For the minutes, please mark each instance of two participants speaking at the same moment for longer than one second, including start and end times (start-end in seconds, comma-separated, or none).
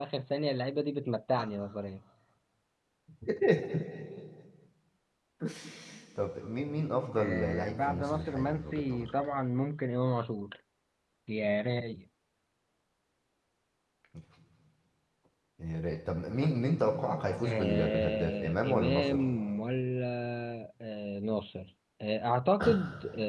7.2-9.1, 17.4-19.2